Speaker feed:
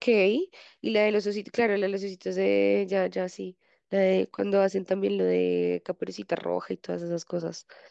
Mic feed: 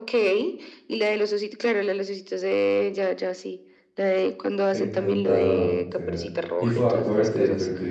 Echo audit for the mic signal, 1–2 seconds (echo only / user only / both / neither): echo only